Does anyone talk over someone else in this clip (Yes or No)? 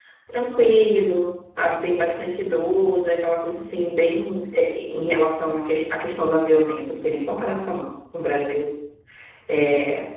No